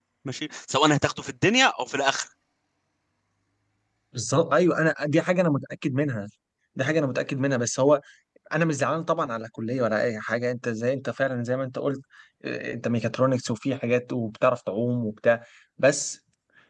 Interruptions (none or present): none